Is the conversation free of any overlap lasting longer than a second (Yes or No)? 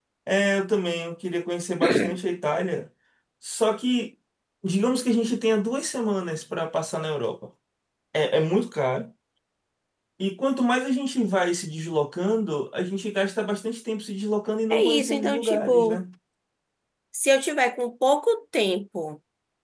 No